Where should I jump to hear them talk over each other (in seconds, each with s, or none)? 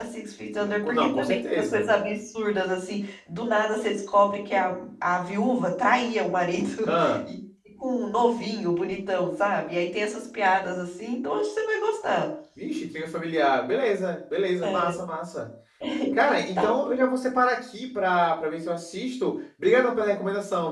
0.6 s